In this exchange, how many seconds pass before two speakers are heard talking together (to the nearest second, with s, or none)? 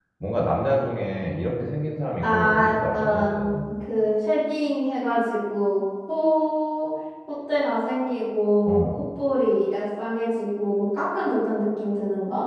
2 s